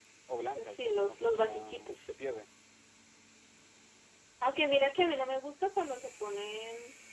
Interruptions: present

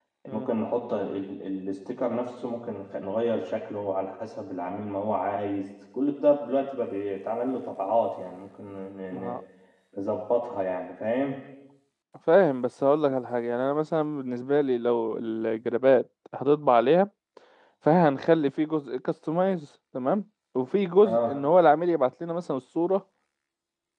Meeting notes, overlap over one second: none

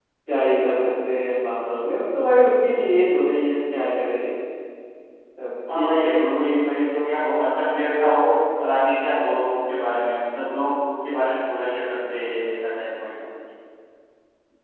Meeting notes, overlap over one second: none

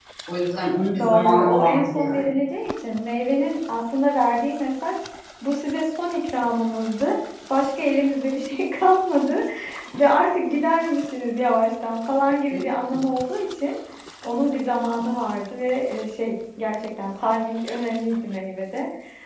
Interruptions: present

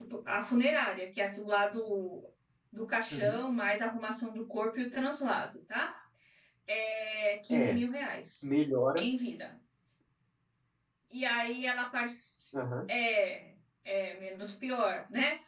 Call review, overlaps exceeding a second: none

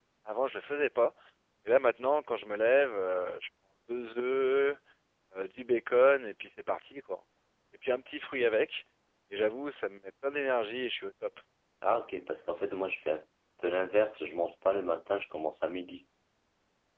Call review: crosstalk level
none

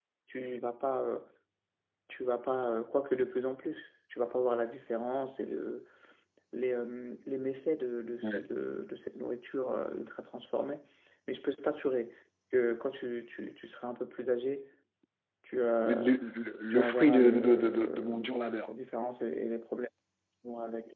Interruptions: present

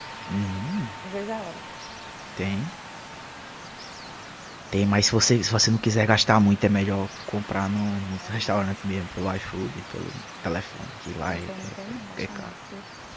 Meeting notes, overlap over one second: present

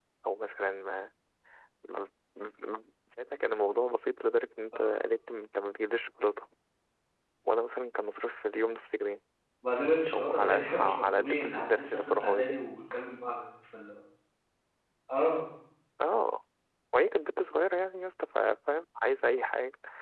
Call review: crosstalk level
present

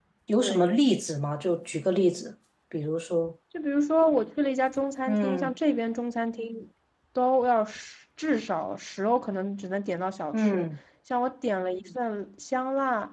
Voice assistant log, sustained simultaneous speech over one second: none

